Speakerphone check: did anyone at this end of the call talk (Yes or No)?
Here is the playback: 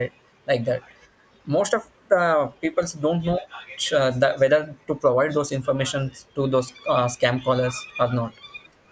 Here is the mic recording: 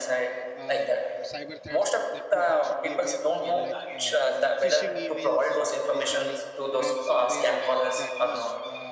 Yes